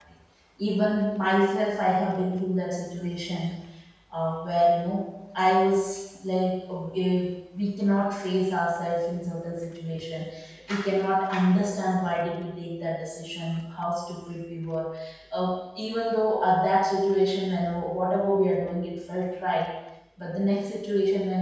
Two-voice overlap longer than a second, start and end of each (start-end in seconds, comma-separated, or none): none